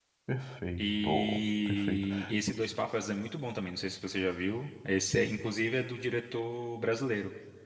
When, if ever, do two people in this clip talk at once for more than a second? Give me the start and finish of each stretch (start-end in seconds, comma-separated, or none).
0.8-2.0